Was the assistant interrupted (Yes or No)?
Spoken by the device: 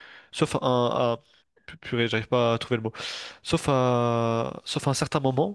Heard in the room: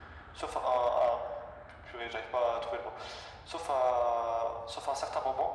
No